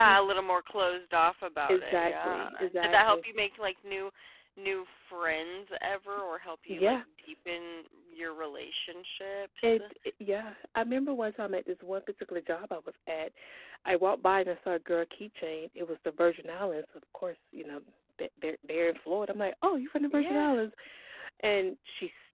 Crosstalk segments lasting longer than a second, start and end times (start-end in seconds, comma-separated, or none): 1.7-3.2